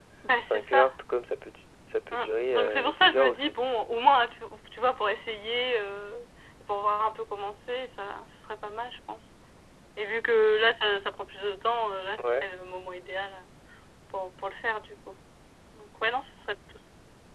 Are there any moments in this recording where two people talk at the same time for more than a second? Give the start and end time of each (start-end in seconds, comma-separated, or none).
2.1-3.6